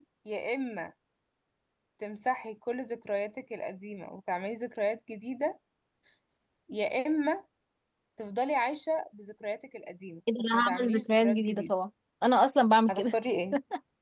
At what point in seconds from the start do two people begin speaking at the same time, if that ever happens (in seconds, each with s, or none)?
10.4 s